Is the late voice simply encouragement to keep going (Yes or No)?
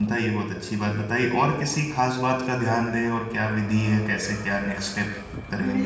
No